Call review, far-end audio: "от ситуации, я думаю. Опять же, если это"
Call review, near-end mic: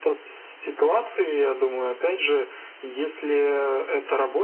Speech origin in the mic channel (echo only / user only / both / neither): echo only